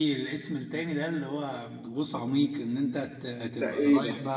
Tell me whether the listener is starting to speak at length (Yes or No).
No